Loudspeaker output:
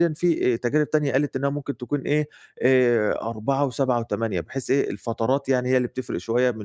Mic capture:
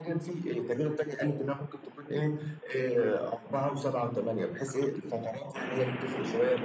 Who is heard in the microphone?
echo only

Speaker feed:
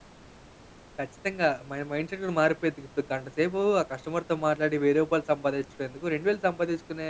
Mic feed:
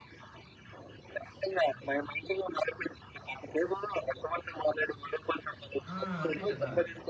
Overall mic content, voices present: both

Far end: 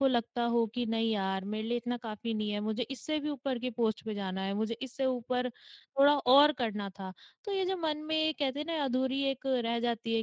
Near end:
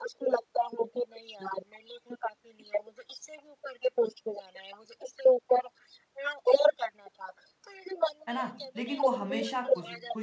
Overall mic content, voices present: both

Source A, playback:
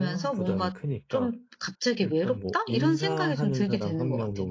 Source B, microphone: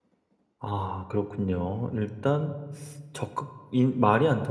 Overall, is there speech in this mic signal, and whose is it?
user only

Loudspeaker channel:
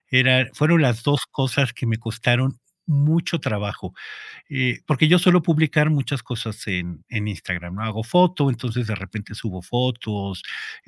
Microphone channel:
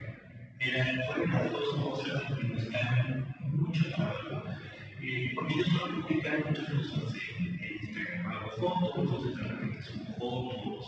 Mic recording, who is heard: echo only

